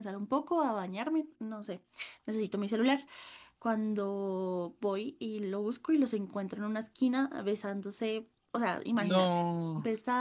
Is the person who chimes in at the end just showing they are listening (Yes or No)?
Yes